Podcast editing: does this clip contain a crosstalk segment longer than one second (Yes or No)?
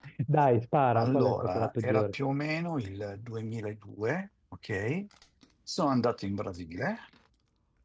Yes